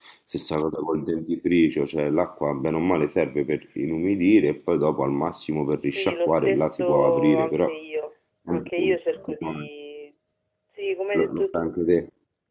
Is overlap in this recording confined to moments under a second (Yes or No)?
No